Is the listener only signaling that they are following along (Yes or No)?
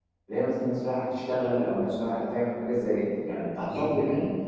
Yes